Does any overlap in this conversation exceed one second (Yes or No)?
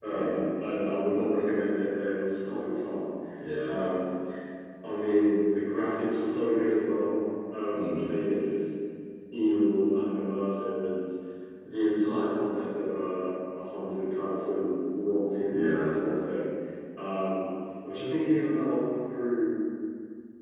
No